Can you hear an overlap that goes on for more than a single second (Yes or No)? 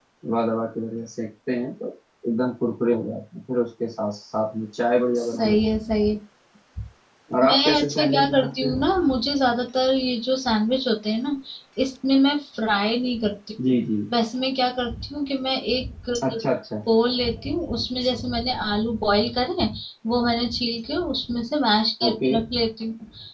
Yes